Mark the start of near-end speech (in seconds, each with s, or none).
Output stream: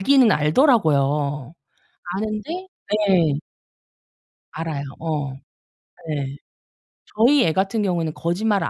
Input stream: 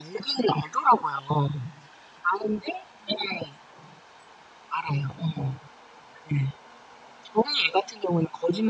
none